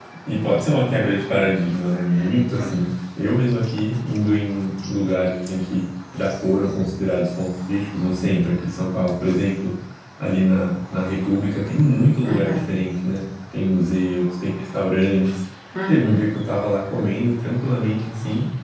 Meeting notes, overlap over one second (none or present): none